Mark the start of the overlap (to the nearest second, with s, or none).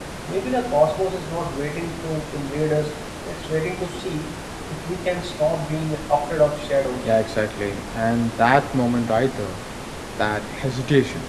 none